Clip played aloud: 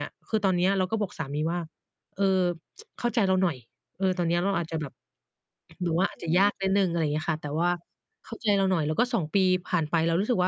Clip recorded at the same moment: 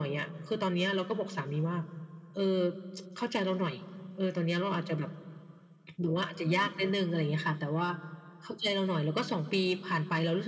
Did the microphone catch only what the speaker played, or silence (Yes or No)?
Yes